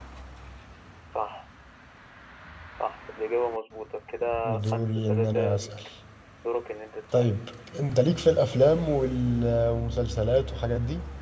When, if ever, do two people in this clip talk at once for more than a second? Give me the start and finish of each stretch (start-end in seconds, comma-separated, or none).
4.5-5.7